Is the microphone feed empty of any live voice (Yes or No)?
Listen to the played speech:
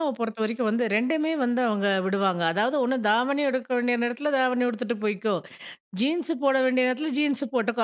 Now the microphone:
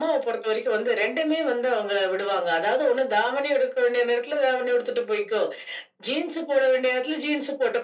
Yes